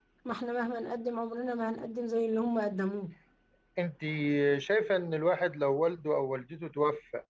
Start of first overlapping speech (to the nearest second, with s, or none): none